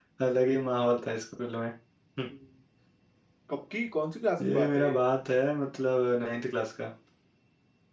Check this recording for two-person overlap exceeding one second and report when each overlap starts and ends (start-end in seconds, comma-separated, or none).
none